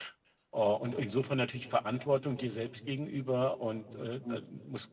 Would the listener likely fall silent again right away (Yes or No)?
Yes